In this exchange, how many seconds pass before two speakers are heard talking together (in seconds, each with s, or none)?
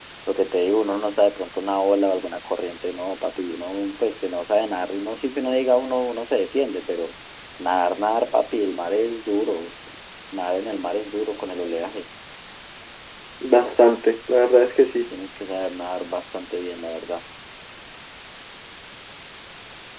none